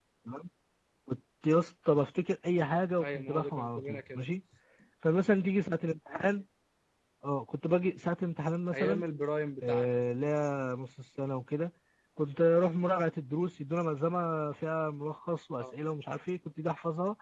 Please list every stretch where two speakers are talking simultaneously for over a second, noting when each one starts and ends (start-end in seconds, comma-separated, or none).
3.0-4.2